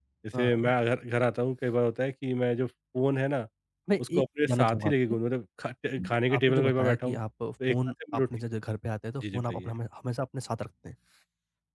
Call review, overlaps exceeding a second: present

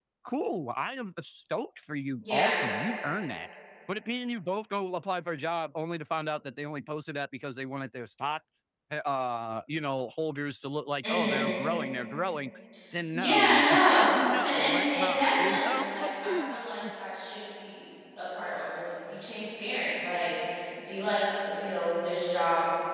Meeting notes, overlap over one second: present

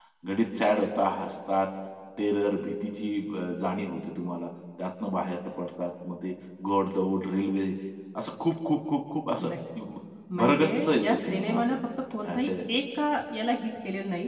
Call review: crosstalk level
present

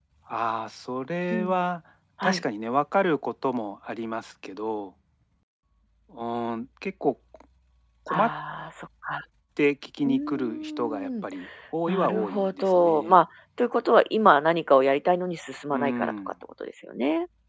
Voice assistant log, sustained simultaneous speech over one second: present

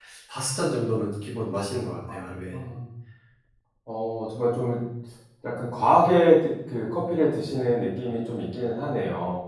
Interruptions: none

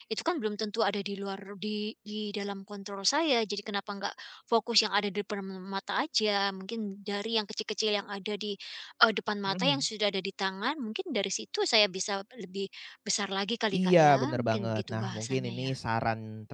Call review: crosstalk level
present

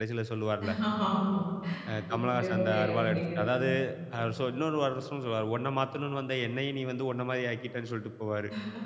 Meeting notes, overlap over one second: present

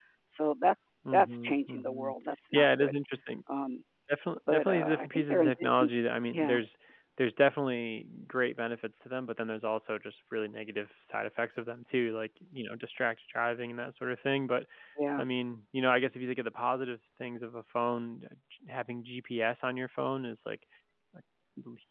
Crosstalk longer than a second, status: present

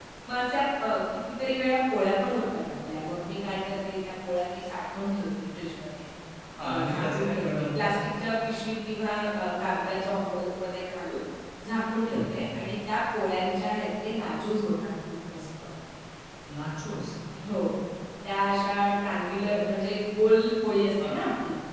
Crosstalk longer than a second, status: present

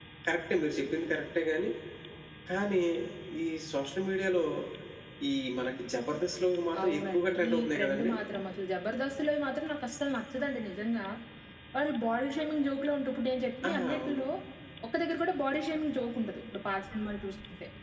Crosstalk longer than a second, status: present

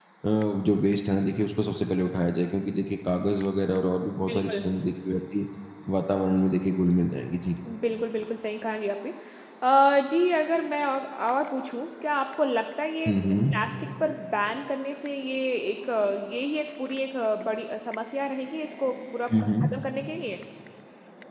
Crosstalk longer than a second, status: none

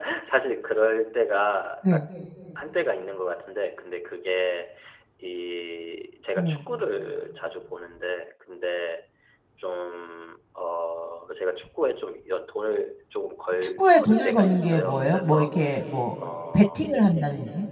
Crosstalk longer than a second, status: present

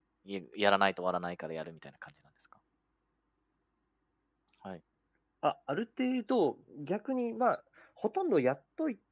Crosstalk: none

